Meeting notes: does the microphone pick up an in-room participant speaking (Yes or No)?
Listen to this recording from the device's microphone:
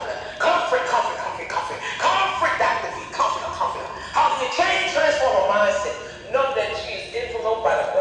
No